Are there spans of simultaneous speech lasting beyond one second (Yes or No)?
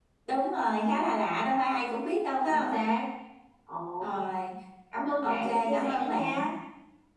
Yes